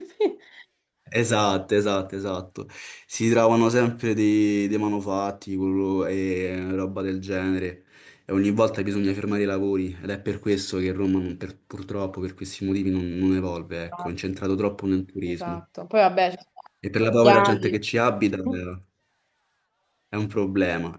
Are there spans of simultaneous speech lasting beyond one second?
No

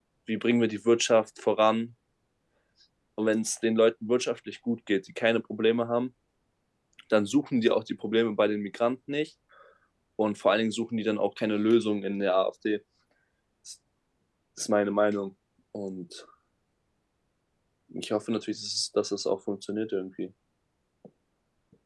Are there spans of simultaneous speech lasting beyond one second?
No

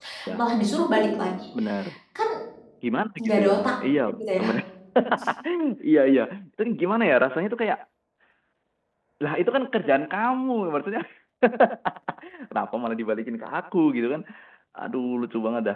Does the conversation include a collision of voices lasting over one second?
No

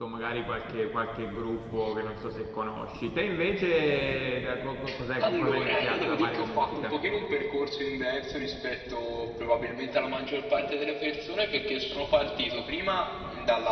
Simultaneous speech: Yes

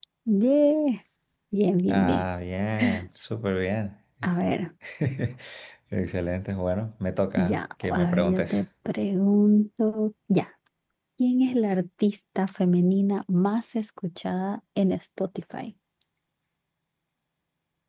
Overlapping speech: Yes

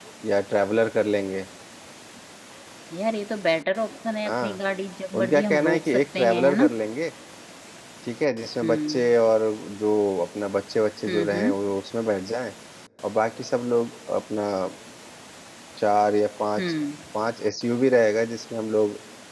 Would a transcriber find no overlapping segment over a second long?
No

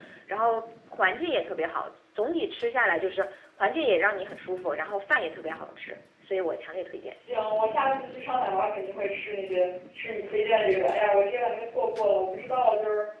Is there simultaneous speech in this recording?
No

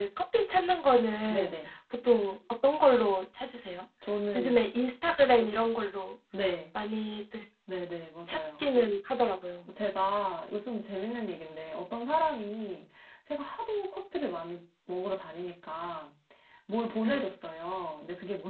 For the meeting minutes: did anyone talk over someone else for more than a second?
No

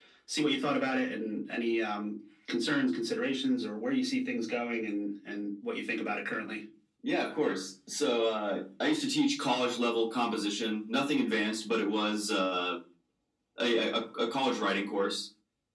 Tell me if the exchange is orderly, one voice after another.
Yes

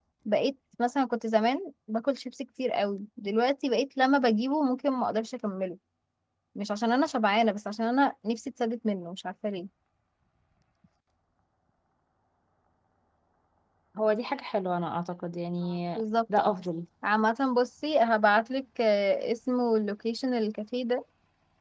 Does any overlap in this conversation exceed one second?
No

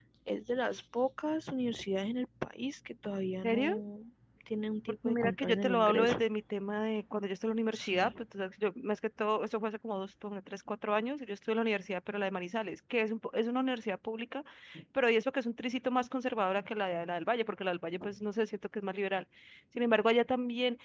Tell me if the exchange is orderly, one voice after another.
No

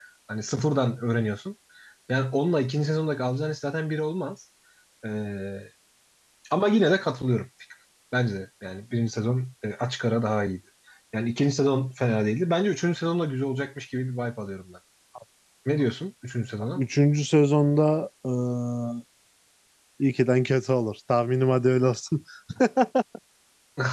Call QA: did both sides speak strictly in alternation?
Yes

